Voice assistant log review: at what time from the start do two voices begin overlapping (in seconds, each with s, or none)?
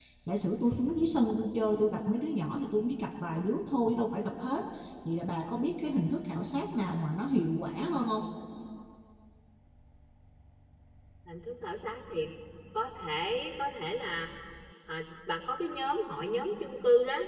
none